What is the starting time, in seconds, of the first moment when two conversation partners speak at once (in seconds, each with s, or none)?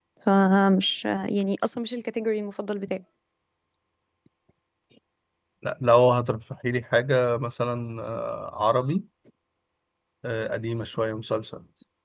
none